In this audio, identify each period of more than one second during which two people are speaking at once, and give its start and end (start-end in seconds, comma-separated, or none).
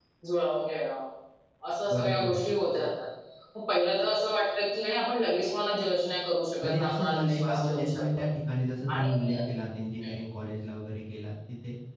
6.6-8.2